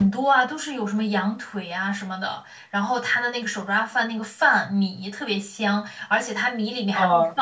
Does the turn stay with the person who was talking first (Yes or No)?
Yes